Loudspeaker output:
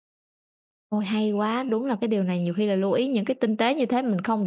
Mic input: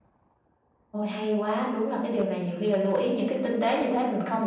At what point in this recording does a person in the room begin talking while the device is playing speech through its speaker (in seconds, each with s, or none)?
none